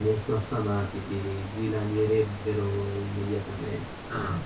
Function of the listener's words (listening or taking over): taking over